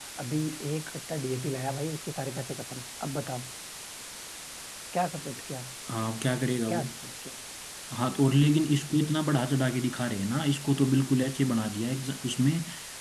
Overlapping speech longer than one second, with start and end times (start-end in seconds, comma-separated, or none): none